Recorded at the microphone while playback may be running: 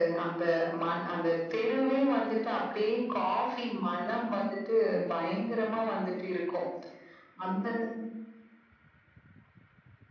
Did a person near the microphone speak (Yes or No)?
No